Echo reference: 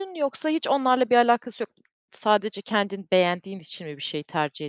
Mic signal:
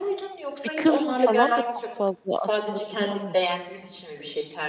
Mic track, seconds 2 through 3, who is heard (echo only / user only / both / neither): both